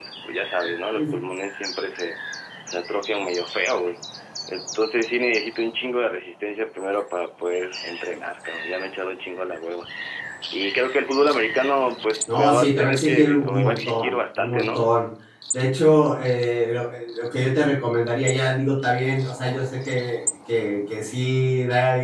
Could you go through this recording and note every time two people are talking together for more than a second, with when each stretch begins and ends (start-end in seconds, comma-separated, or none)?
12.3-14.9